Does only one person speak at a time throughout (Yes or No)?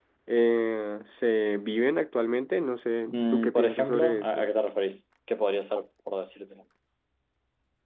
No